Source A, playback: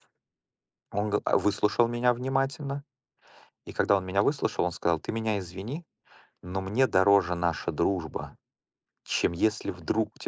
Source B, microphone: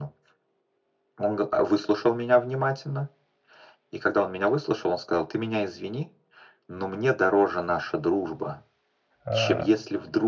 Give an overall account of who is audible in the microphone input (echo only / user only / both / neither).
both